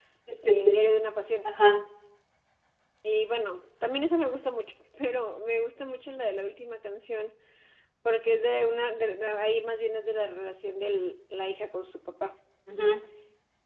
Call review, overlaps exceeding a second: none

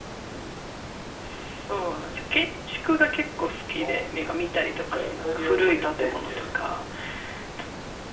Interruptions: present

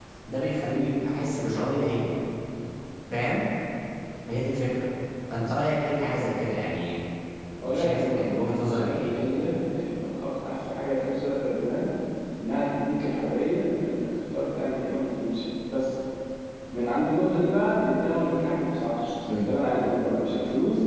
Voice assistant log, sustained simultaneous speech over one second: present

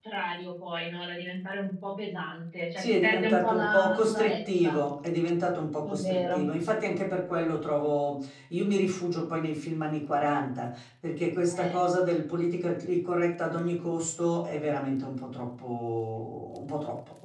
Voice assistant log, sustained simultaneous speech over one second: present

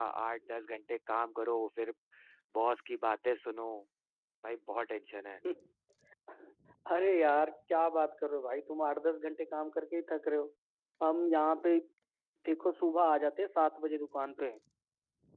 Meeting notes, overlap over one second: none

